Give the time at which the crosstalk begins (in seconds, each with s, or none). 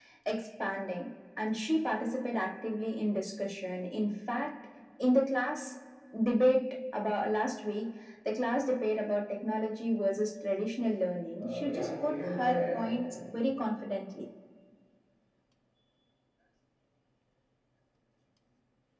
11.4 s